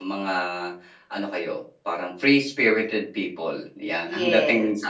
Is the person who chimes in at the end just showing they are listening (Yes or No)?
Yes